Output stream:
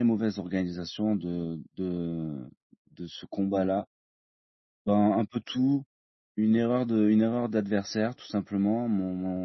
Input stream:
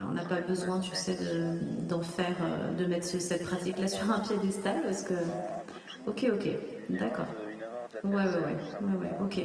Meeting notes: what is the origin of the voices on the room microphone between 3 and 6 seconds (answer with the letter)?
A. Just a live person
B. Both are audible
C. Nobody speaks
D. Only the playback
B